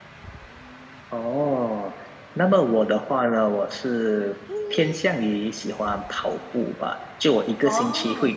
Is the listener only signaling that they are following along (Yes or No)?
Yes